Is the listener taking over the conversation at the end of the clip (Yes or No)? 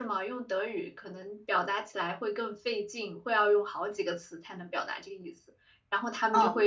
No